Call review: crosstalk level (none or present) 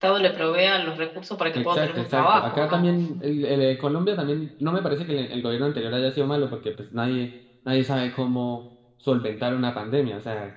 present